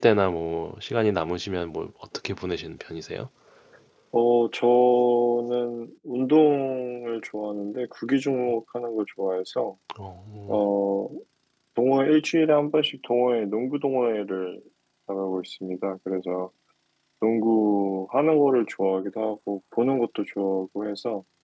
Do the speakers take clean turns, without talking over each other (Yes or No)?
Yes